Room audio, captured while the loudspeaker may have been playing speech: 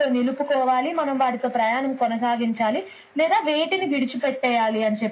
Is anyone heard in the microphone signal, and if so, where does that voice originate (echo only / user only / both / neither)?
echo only